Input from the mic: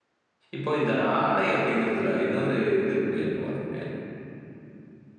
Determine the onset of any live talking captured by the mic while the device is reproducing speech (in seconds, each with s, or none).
0.6 s